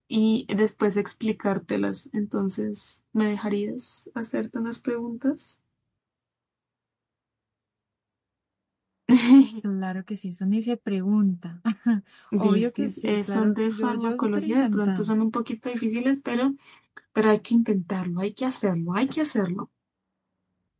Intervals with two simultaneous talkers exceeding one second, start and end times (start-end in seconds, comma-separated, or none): 12.4-15.1